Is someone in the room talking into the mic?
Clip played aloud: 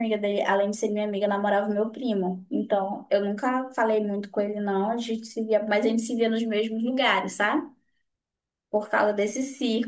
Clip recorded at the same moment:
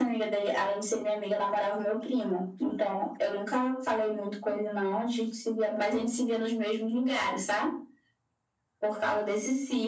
No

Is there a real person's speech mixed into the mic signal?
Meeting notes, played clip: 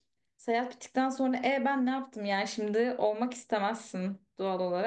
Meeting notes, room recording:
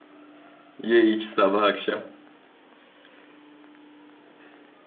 Yes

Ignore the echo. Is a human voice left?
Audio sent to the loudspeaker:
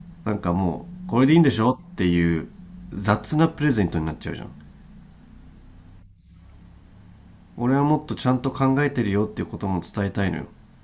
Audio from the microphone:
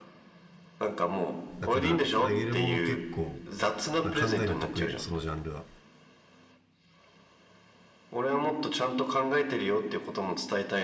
Yes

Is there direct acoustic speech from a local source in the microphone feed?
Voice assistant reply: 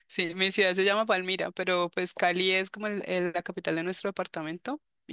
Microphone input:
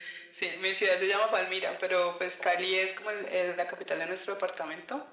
No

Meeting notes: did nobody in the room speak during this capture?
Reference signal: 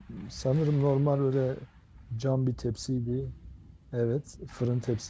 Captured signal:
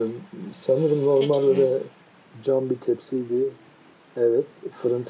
No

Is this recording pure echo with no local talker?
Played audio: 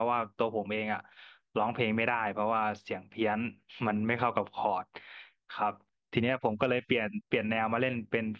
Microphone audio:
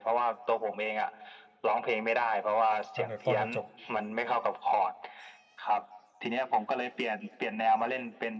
No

